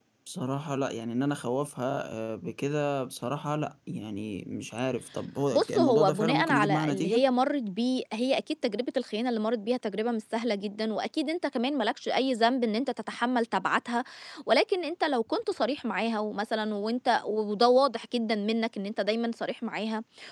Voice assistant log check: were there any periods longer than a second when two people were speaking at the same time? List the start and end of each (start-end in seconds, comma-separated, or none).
5.5-7.2